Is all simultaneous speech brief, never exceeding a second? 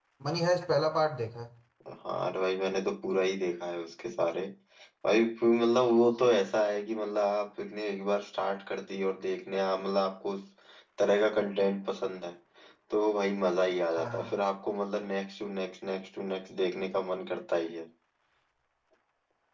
Yes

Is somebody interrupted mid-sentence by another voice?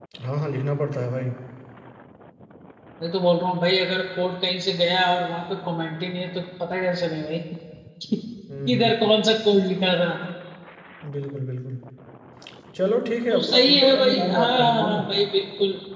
Yes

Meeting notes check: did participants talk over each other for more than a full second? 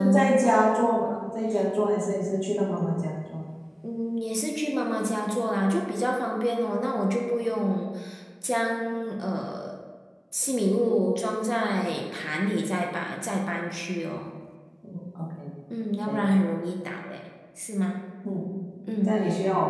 No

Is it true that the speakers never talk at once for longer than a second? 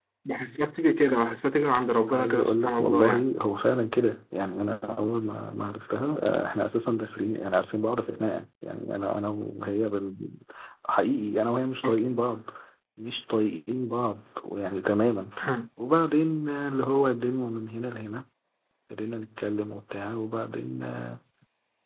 No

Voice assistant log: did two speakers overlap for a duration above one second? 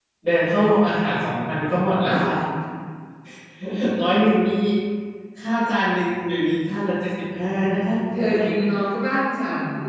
No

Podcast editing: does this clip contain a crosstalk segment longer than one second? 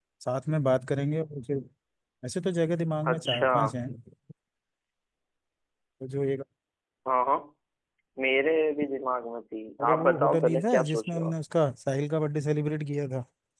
Yes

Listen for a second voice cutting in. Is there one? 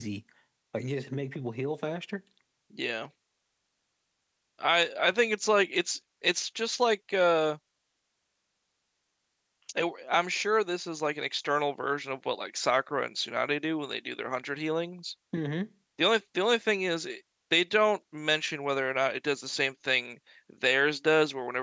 No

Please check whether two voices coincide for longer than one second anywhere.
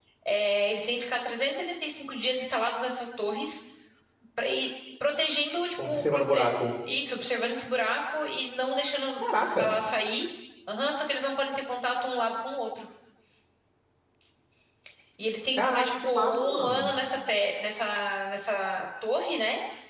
Yes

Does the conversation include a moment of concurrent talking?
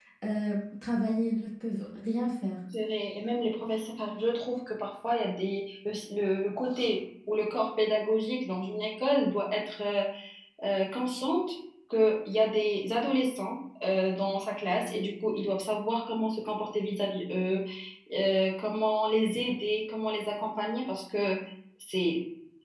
No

